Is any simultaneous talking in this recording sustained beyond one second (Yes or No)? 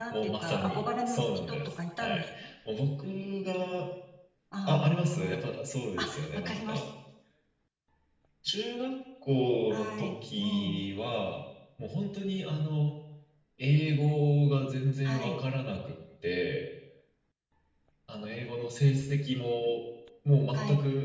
Yes